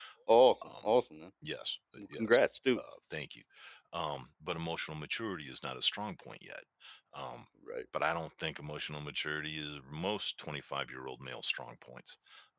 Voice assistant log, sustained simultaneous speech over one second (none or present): none